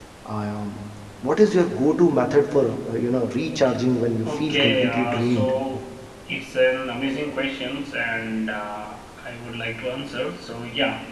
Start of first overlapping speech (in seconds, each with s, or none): 4.2 s